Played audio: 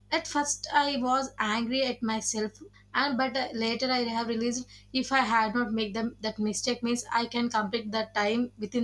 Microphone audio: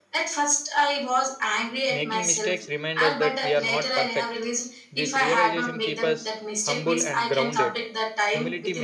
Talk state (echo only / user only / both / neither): both